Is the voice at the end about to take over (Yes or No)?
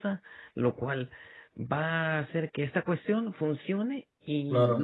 No